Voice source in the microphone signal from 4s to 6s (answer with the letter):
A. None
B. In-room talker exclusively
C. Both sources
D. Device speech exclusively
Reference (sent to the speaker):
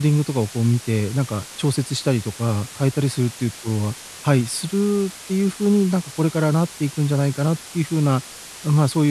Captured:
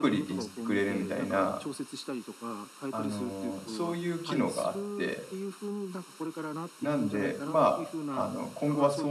C